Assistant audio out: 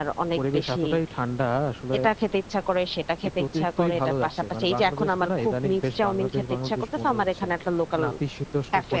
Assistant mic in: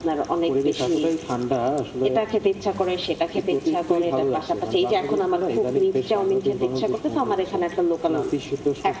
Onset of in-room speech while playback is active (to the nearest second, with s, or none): none